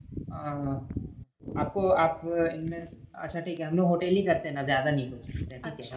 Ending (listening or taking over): taking over